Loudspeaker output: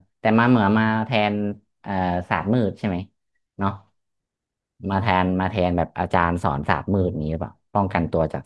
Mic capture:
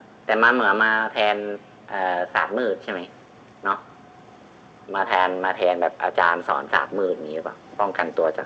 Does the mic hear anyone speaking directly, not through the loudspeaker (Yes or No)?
No